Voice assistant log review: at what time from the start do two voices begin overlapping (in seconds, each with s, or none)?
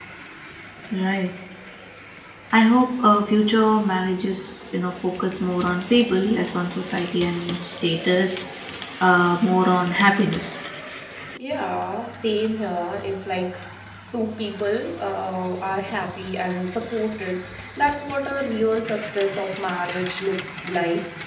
none